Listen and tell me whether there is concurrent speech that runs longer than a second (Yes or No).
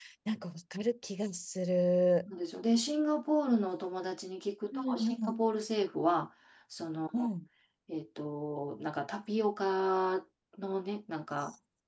No